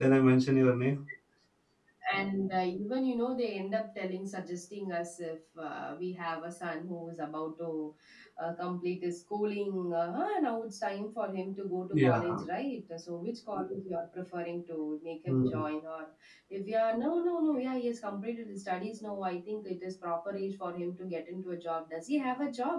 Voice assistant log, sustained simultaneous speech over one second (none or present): none